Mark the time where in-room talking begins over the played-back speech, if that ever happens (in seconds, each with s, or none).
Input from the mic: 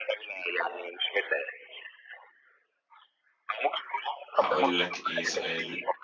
4.3 s